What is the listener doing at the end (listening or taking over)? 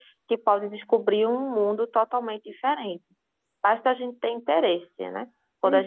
listening